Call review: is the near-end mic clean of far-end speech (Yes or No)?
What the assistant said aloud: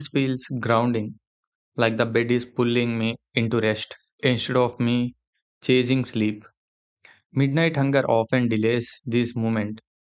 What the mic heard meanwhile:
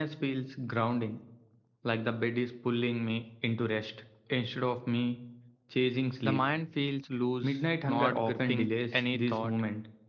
No